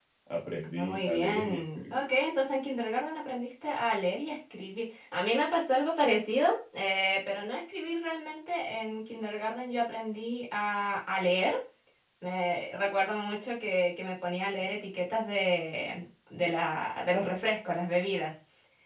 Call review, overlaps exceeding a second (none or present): present